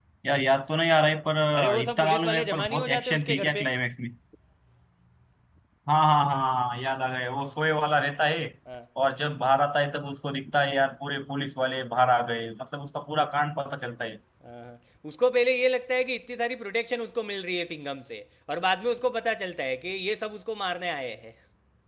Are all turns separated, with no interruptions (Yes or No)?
No